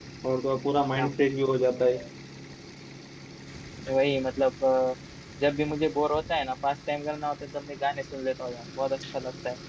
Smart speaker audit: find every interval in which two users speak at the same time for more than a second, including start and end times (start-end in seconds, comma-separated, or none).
none